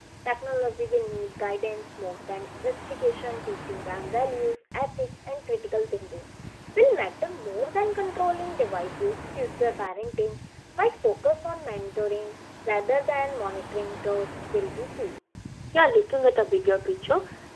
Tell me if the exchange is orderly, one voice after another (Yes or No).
Yes